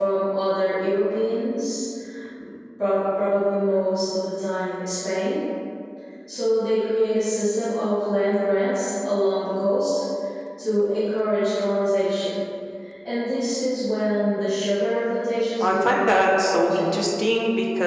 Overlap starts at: 15.6 s

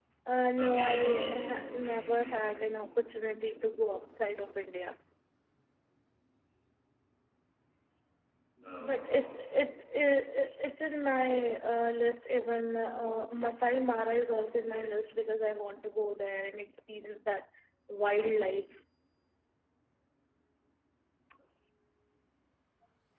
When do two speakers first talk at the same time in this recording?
0.6 s

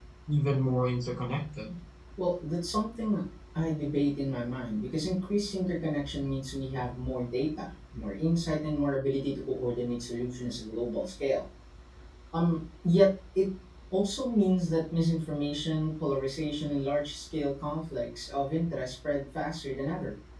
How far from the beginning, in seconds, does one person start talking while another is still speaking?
none

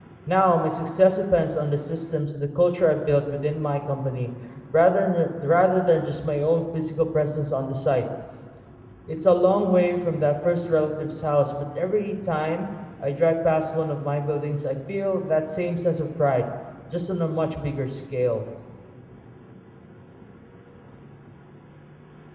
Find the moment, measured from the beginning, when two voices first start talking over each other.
none

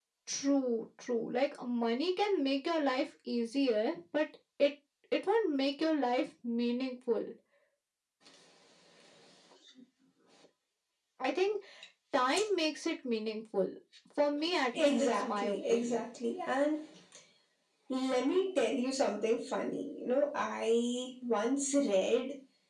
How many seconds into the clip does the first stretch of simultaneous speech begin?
14.8 s

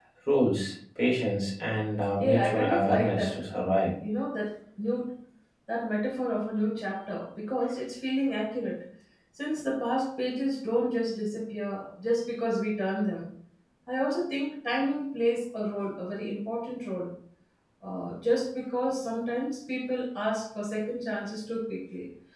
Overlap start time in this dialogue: 2.2 s

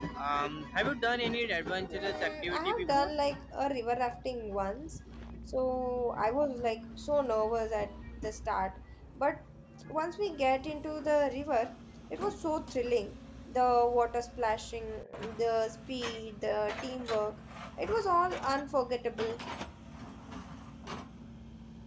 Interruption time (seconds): 1.9 s

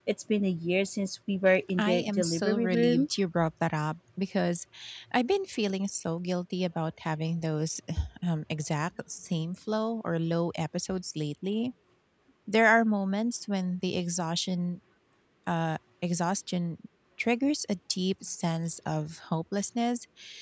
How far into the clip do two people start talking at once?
1.8 s

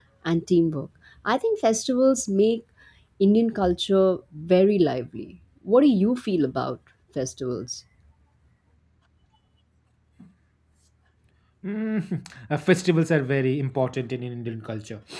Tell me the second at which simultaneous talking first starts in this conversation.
none

